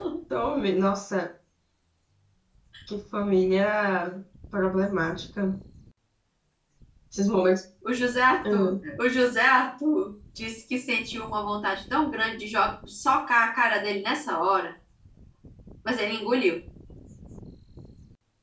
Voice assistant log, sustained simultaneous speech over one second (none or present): none